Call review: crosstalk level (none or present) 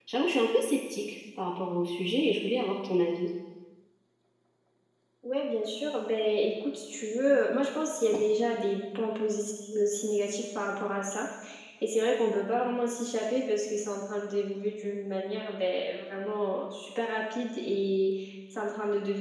none